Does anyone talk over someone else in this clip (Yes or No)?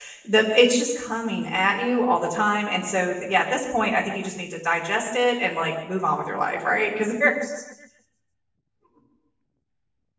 No